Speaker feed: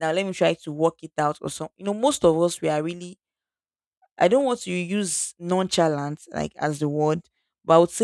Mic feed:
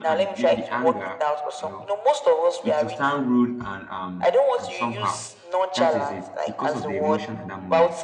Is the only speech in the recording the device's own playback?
No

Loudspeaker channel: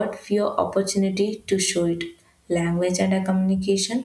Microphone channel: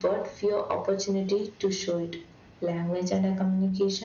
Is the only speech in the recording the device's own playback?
Yes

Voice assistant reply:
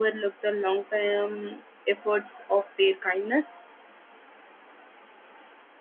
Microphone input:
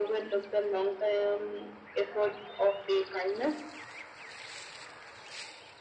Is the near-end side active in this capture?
No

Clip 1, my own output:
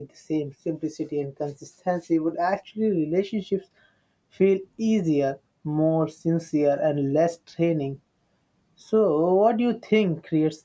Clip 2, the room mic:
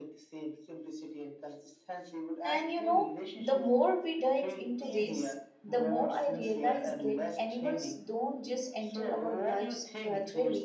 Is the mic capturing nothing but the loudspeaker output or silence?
No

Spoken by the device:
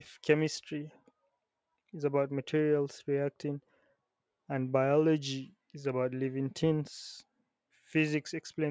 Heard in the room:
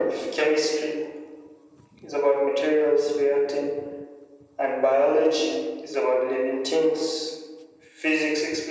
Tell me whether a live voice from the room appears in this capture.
No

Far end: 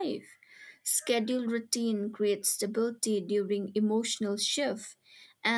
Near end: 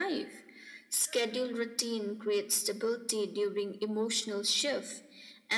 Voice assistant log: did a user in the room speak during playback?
No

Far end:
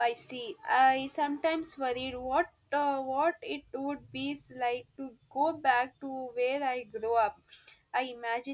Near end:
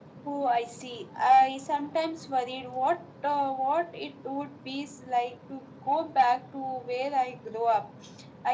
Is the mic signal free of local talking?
Yes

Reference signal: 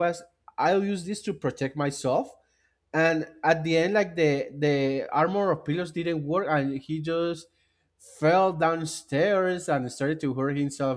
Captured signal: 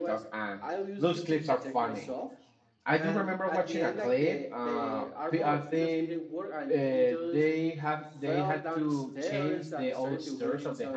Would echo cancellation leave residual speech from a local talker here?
Yes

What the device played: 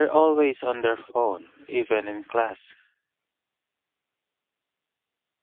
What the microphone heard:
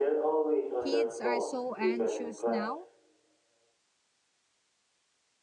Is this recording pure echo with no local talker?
No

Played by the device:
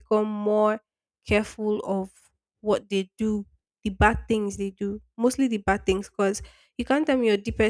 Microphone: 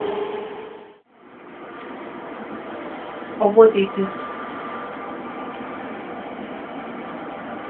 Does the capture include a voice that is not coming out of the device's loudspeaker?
Yes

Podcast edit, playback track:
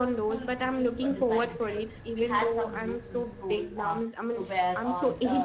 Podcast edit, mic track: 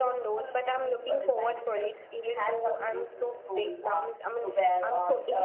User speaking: No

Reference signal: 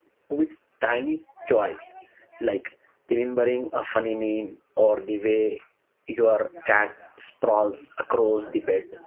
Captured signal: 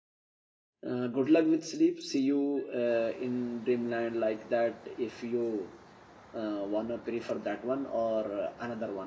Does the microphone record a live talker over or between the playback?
Yes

